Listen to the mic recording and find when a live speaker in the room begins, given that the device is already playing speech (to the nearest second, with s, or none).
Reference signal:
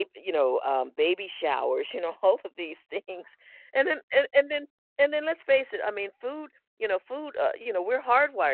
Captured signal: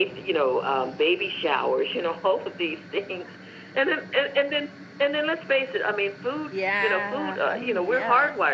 7 s